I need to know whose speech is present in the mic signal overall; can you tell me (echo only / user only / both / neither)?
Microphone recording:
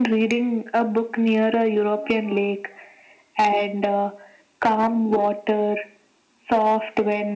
echo only